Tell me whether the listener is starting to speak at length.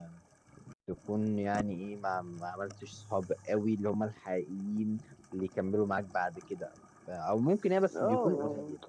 Yes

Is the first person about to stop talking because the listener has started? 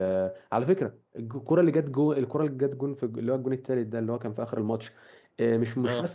No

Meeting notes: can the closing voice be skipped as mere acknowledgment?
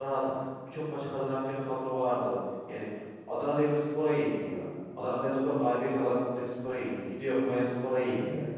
Yes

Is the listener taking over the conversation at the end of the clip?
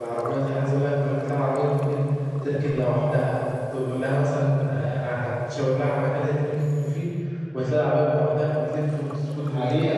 Yes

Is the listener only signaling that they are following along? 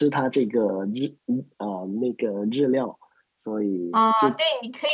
No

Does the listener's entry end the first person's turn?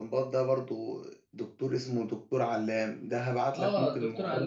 Yes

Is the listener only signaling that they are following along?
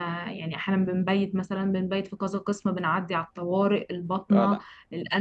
Yes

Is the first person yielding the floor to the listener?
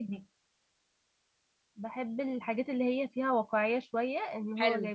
Yes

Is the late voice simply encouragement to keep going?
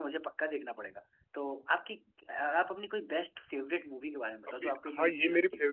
No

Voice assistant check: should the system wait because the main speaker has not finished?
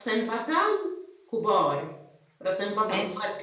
Yes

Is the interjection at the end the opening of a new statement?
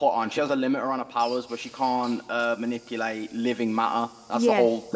No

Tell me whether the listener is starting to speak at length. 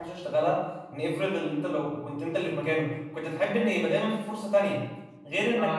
No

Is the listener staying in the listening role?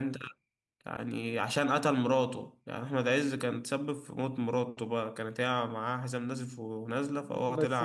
No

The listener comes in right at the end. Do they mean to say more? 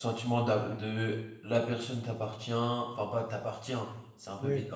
No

